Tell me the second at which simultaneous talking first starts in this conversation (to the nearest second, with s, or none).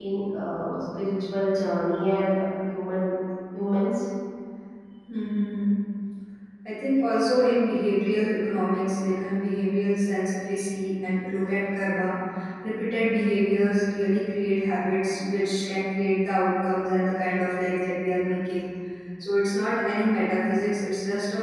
none